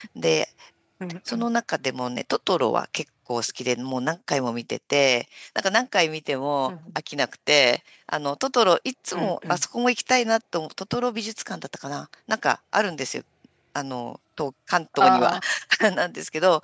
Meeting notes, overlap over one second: none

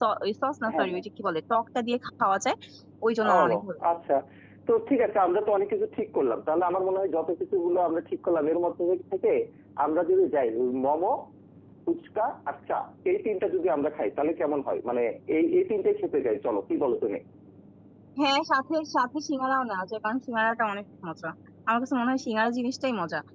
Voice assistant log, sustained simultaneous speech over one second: none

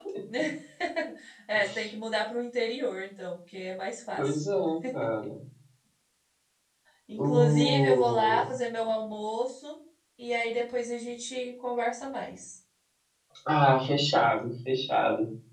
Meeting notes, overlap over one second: present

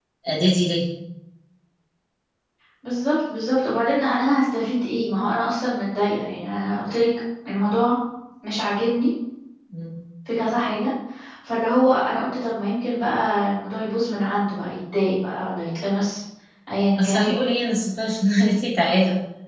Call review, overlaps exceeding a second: none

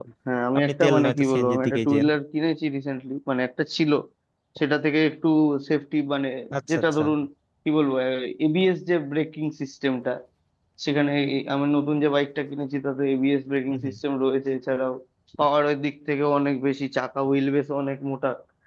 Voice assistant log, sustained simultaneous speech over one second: present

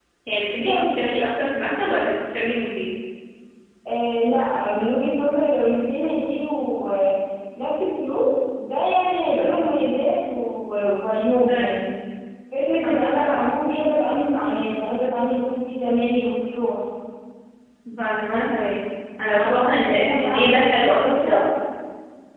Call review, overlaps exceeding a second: present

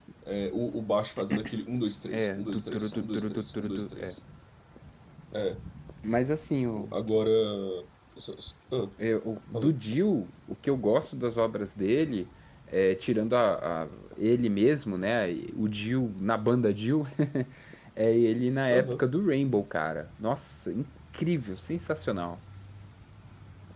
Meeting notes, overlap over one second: present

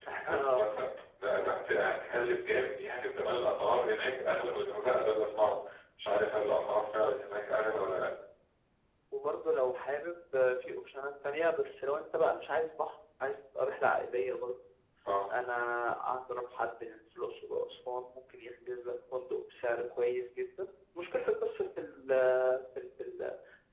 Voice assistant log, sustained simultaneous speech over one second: none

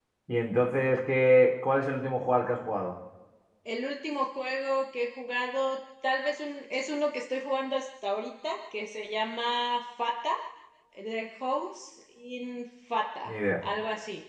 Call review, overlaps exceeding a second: none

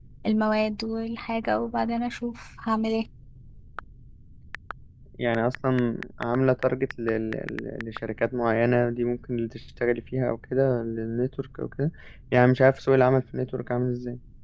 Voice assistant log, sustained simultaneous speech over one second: none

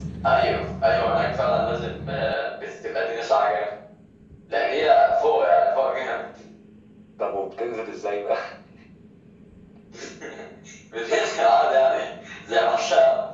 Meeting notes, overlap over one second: none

